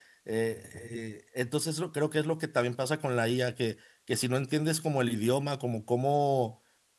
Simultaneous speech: No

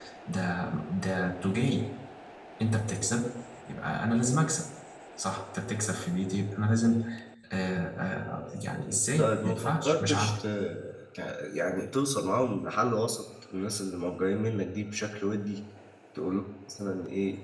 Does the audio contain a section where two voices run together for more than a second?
Yes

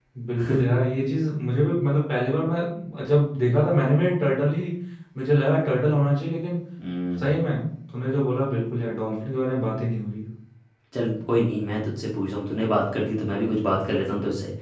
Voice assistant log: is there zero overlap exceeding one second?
Yes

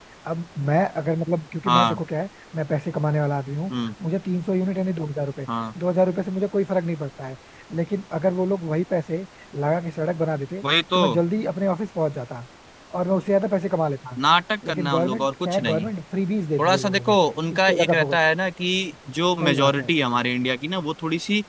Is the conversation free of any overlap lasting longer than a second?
No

